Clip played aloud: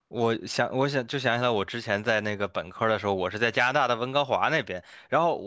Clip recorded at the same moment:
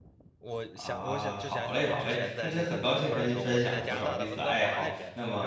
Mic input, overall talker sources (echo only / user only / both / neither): both